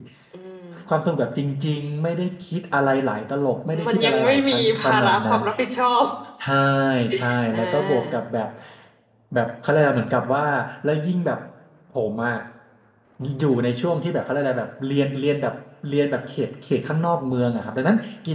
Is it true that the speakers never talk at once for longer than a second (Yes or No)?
No